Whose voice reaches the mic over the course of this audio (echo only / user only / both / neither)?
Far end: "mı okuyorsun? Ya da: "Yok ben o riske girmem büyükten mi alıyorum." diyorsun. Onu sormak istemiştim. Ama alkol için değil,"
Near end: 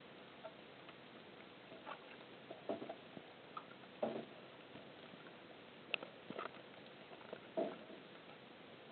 neither